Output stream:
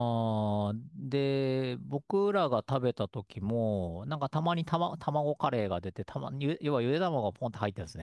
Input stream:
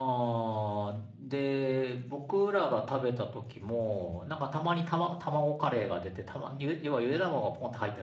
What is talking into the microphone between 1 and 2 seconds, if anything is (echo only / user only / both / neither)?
echo only